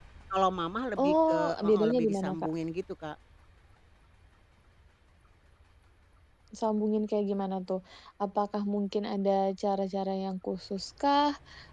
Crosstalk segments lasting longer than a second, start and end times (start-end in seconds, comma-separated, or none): 1.0-2.5